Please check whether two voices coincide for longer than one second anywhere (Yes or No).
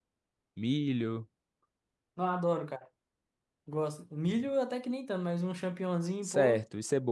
No